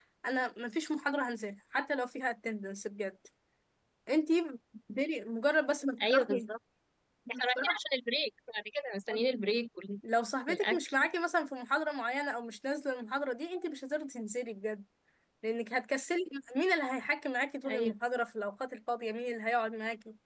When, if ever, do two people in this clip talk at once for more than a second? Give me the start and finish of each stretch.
none

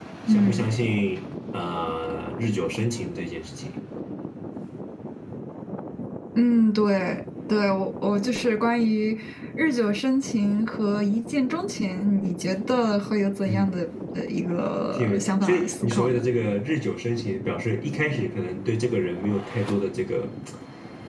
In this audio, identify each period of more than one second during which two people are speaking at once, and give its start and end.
14.9-16.3

